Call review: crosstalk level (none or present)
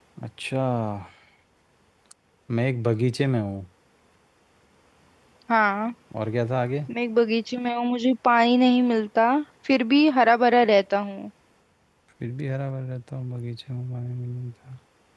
none